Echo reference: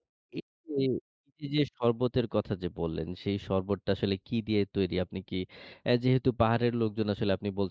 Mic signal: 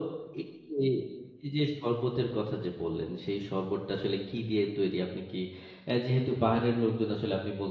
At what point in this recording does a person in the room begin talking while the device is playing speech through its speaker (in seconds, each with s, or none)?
none